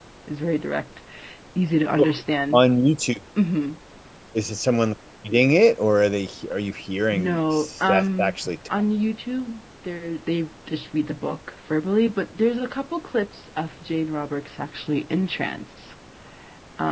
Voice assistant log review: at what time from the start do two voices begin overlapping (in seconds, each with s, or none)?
7.1 s